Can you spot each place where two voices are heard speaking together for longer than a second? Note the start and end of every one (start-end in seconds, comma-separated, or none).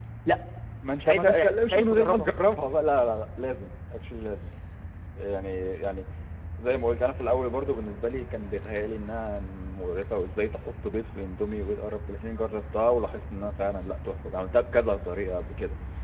1.0-2.3